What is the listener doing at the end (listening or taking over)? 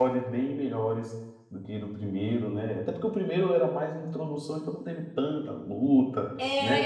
taking over